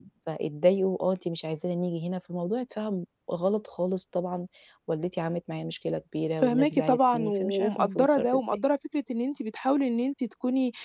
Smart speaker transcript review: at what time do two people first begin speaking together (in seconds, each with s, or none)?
6.4 s